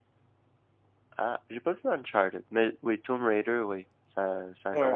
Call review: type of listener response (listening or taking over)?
taking over